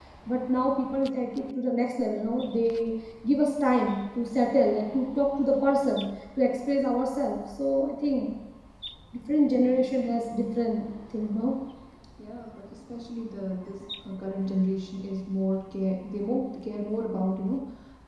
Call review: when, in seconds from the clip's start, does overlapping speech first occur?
none

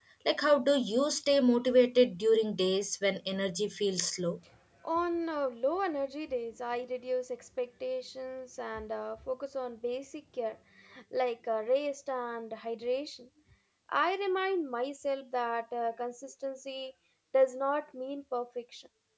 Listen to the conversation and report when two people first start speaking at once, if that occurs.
none

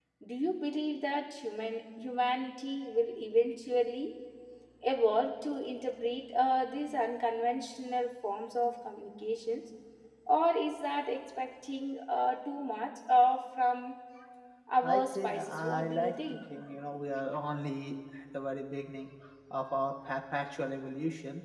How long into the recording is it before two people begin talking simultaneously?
15 s

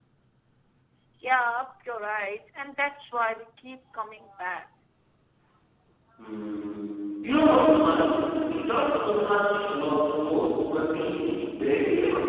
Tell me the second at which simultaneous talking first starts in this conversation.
none

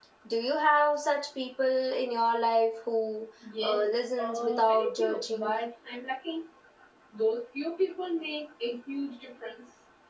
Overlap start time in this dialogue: 3 s

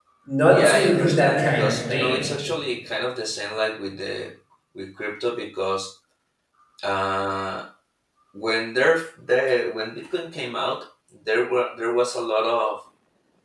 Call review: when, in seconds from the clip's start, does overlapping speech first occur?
1 s

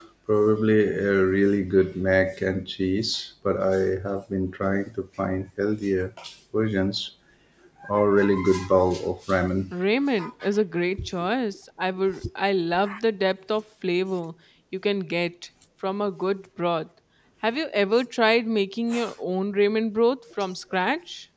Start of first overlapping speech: none

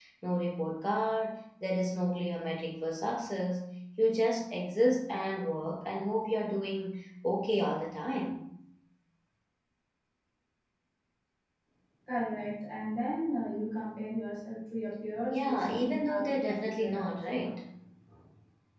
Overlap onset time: 15 s

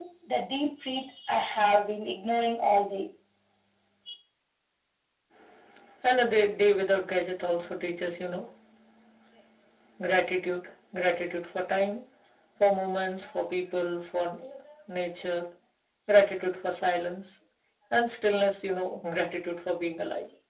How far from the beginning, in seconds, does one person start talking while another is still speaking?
none

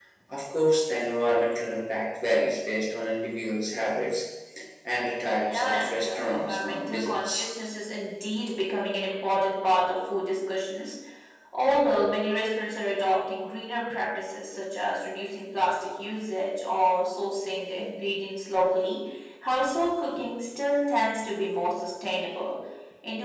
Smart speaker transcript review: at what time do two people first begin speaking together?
5 s

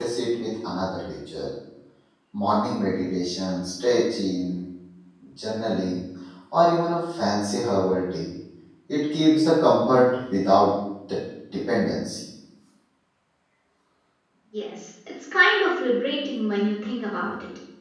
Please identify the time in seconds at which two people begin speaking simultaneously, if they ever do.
none

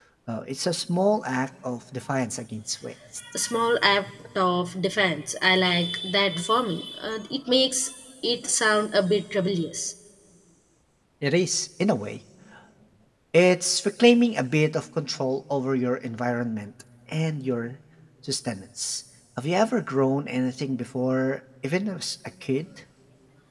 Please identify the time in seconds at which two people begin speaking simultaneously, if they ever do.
none

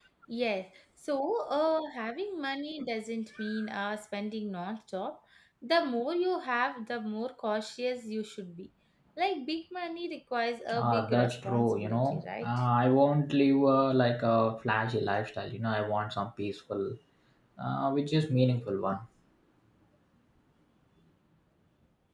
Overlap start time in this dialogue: 11 s

